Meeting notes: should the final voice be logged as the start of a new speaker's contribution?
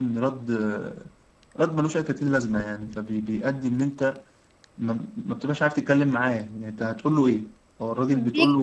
No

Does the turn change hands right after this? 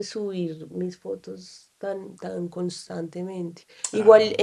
No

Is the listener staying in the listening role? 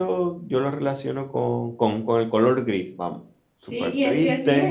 No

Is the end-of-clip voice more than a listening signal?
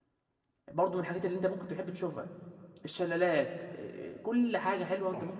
Yes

